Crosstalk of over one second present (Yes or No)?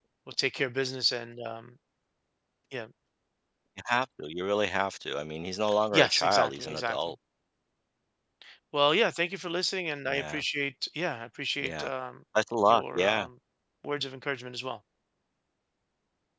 Yes